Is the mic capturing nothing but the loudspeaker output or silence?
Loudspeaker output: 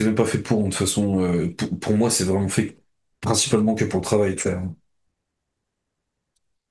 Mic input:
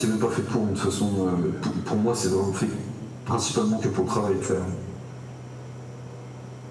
Yes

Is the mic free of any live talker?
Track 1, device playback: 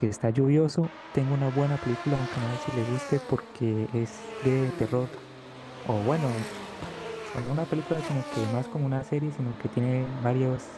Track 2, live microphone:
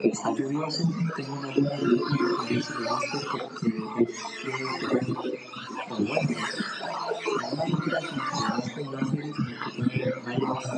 Yes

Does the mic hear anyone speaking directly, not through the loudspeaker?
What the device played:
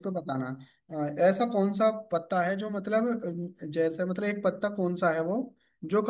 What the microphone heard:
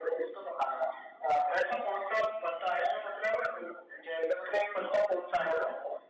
No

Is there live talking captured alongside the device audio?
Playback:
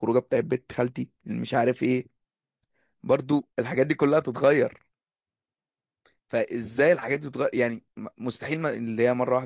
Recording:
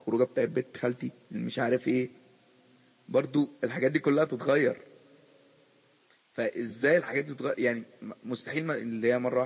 No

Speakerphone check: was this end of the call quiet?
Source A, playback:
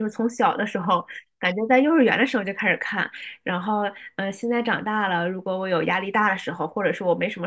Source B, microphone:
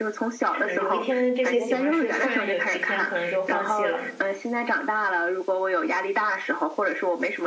No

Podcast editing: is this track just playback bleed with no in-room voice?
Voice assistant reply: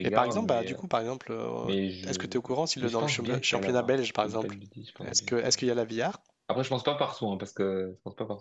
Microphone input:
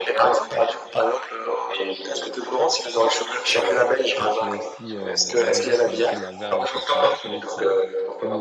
No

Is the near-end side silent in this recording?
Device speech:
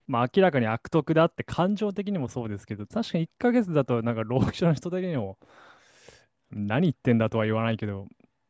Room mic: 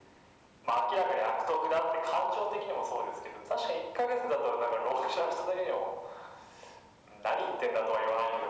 Yes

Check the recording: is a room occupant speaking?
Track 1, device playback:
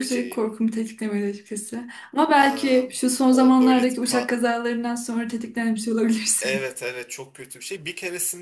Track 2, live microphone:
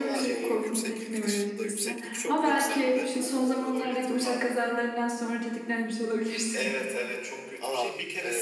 Yes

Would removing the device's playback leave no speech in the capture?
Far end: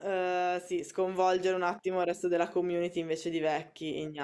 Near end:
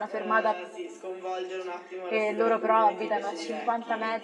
No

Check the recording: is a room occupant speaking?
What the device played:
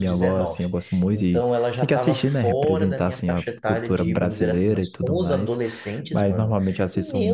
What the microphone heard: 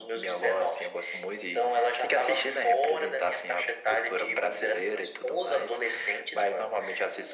No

